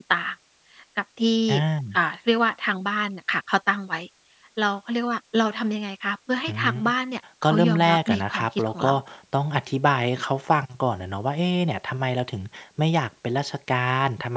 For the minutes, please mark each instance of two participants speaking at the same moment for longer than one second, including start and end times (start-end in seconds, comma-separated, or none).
7.4-8.7